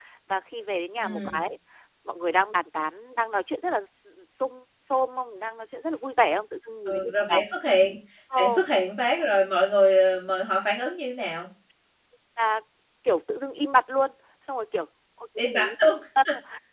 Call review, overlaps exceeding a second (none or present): none